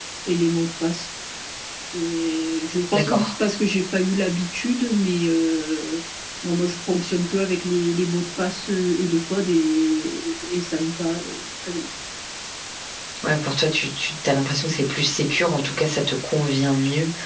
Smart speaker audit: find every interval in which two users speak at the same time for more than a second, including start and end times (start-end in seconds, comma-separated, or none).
none